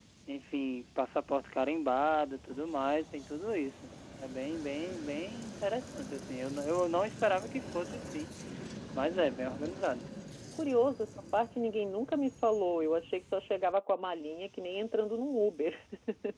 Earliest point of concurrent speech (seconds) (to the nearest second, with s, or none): none